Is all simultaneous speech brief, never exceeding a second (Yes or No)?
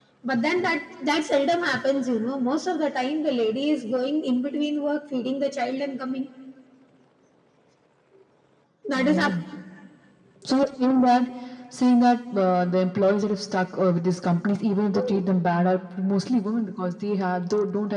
Yes